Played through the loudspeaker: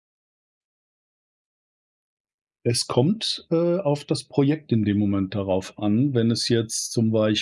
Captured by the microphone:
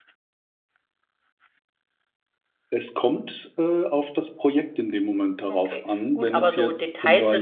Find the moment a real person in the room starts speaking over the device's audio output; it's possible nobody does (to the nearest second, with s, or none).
6 s